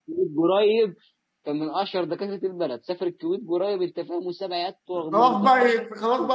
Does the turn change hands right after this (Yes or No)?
Yes